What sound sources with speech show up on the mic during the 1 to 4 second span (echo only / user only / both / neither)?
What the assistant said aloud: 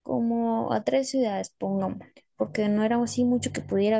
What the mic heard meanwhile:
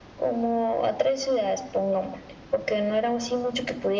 echo only